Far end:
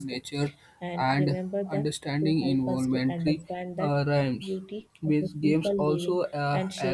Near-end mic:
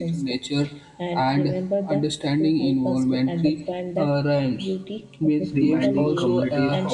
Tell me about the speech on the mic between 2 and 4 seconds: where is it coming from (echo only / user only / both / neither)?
echo only